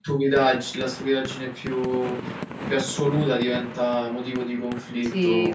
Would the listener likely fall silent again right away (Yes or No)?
No